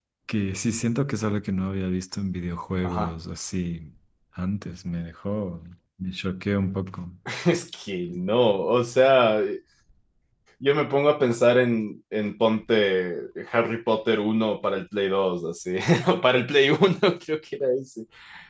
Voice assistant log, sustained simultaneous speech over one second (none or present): none